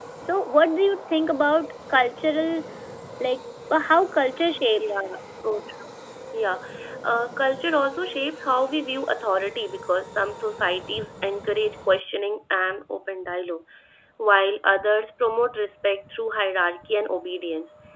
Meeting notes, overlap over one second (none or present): none